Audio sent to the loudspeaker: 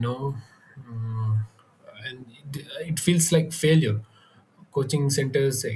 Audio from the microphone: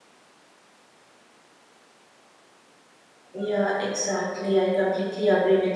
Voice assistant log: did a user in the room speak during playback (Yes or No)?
Yes